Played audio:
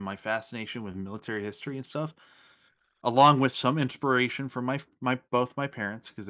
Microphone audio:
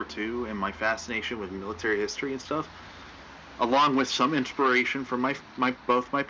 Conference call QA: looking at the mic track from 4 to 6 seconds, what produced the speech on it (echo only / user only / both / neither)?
echo only